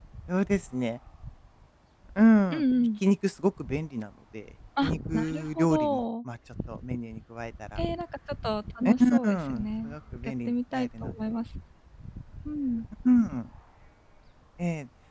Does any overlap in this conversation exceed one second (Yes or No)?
Yes